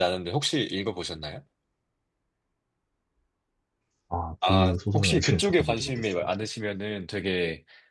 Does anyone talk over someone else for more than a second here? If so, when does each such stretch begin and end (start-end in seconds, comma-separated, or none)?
4.4-6.3